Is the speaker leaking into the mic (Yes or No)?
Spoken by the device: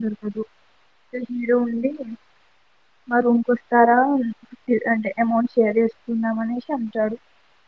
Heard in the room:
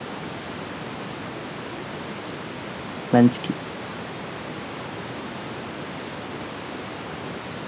No